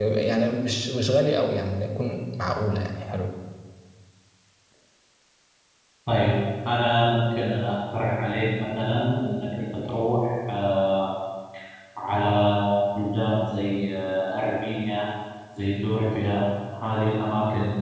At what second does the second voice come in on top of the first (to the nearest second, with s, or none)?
none